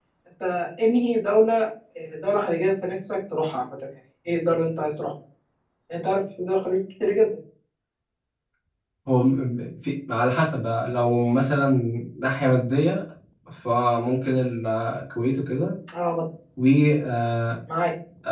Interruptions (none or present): none